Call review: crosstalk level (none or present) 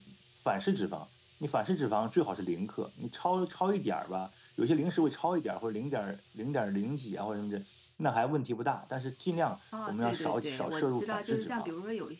present